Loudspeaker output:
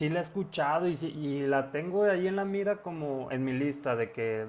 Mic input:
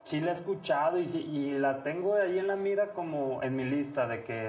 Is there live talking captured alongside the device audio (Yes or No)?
No